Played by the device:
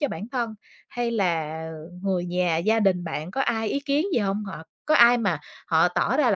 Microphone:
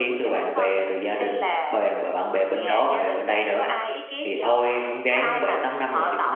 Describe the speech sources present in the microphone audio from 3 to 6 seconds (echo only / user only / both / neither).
both